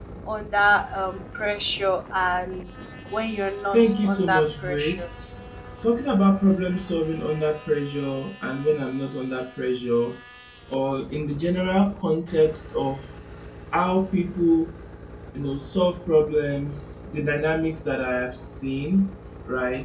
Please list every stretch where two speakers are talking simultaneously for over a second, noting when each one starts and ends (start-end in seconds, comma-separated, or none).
3.7-5.1